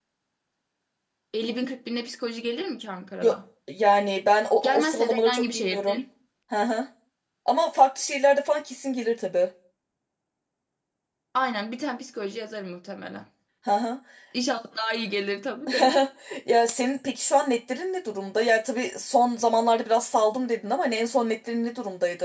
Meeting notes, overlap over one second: present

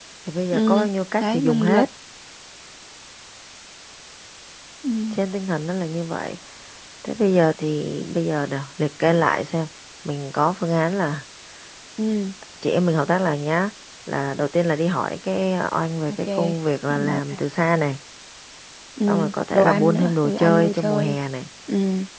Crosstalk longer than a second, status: present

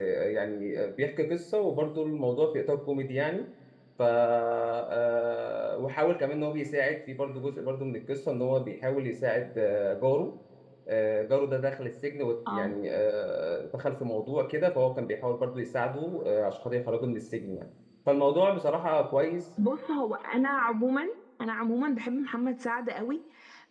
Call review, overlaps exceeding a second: none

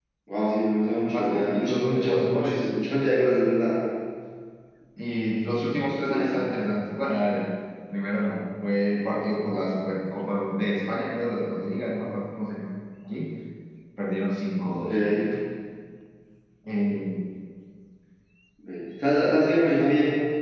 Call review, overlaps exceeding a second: present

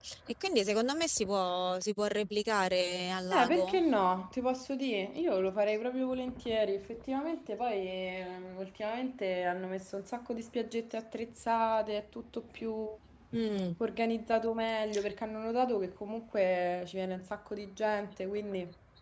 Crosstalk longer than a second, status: none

